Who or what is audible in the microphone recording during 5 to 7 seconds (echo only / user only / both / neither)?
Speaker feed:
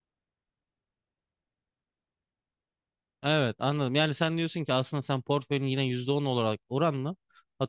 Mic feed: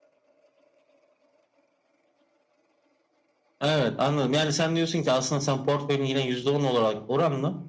echo only